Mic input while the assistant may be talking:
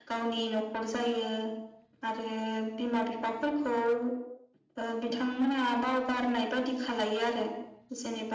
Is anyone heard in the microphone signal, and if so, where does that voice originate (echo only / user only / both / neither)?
echo only